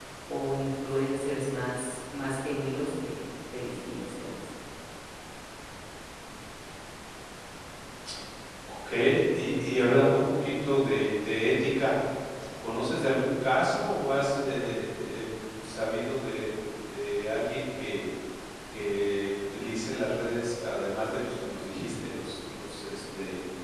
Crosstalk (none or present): none